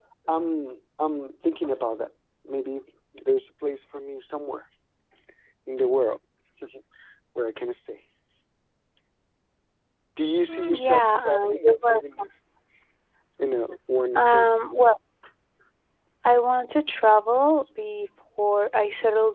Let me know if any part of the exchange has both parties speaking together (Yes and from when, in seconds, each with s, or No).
Yes, from 10.4 s